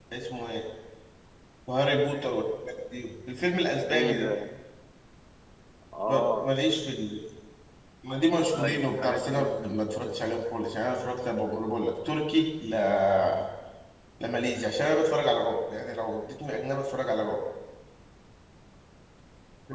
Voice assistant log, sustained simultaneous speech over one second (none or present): present